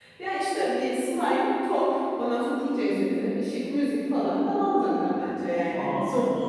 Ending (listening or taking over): taking over